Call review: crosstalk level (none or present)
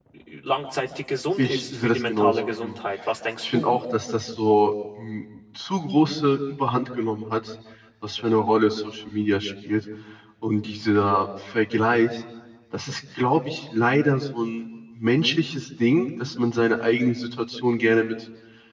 present